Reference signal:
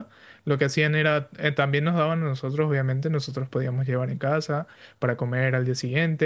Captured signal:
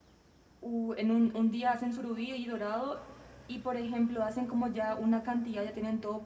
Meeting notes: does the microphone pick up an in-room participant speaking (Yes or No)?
Yes